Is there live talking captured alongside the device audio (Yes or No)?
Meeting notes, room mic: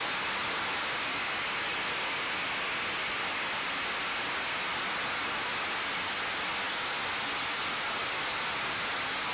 No